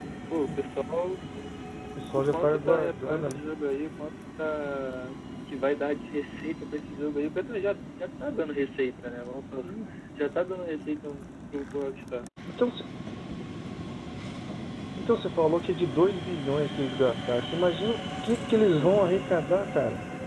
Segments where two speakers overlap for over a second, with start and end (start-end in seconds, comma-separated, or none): 2.2-3.4